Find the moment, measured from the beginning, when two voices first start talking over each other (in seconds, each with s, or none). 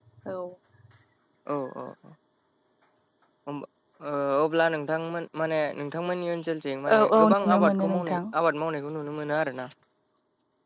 6.9 s